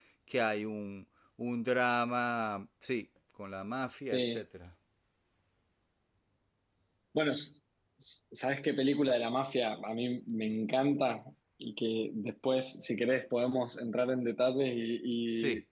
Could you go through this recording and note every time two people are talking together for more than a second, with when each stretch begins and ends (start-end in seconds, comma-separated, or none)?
none